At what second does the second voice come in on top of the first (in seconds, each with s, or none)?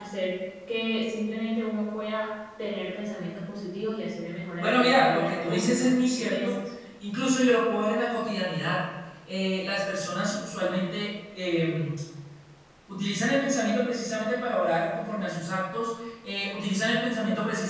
4.6 s